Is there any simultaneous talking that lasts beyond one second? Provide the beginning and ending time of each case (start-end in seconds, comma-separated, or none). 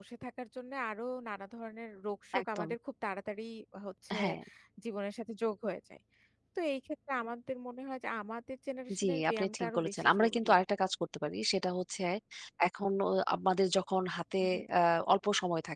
9.0-10.5